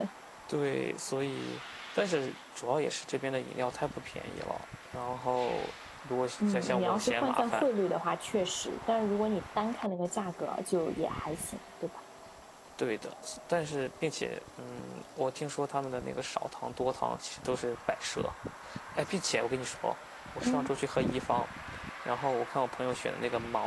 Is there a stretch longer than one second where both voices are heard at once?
Yes, from 6.4 s

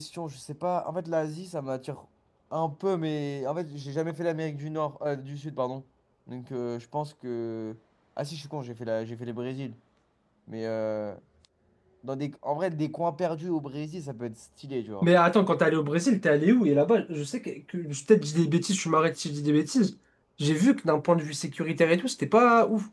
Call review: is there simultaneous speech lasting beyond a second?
No

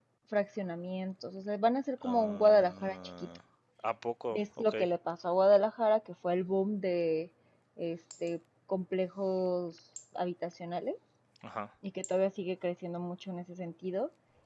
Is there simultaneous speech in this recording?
Yes, from 2.0 s

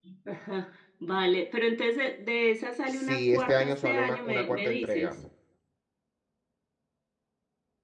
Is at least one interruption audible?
Yes, from 2.9 s

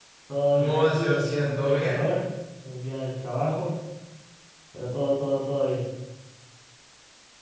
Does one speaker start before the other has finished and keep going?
Yes, from 0.6 s

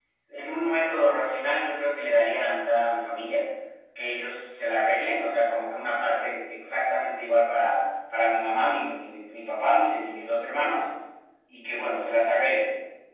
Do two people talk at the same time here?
No

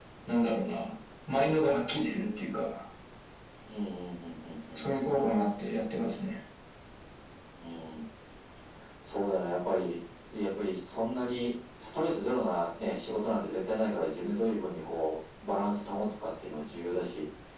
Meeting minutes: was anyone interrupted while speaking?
No

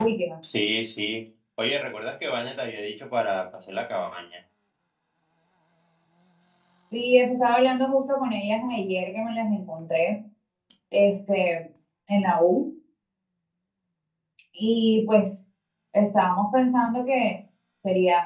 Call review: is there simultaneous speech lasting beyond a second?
No

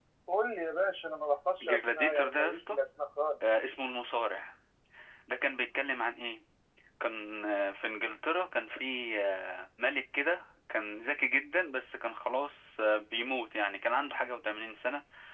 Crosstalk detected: Yes, from 1.6 s

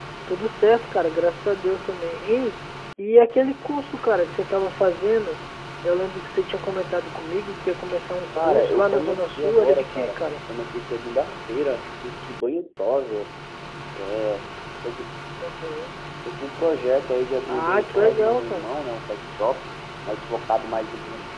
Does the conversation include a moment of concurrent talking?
Yes, from 8.3 s

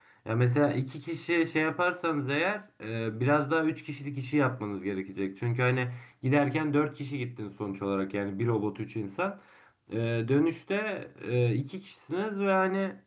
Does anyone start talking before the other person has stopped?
No

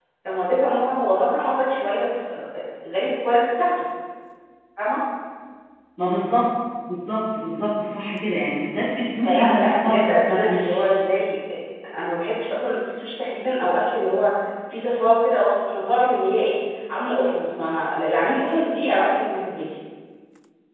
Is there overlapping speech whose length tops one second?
Yes, from 9.2 s

